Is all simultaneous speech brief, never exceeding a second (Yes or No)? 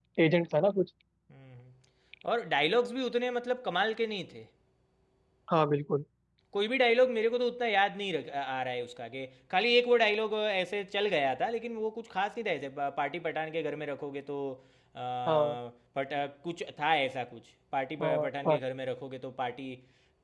Yes